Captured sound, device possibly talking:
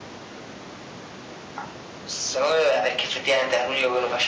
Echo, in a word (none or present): present